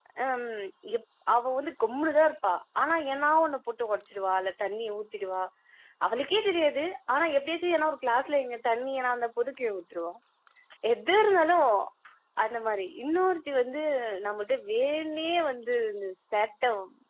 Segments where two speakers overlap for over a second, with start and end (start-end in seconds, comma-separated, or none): none